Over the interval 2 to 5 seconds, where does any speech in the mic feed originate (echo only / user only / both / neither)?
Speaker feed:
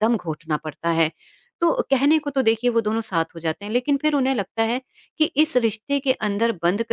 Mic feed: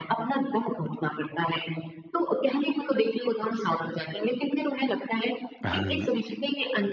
echo only